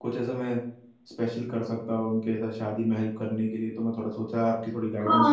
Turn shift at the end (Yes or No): Yes